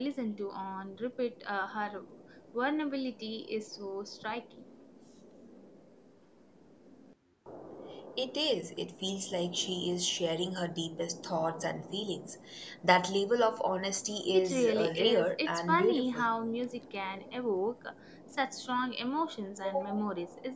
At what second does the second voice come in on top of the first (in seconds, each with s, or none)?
14.3 s